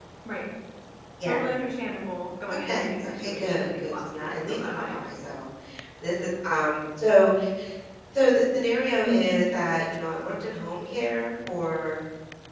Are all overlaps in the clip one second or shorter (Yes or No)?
No